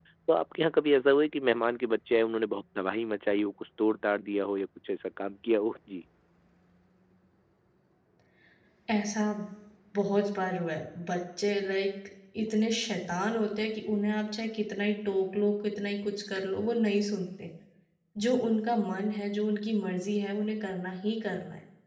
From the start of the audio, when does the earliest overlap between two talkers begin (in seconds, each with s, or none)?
none